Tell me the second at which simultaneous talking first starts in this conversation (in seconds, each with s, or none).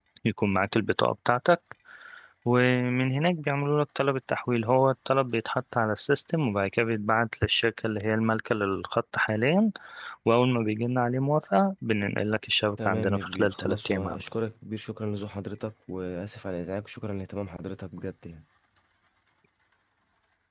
12.8 s